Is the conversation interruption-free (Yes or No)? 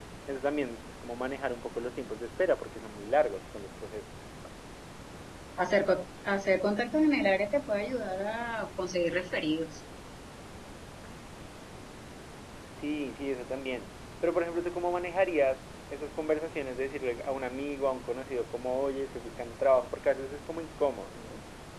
Yes